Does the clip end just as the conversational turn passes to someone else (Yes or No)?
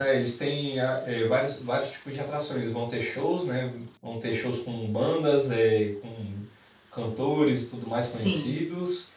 No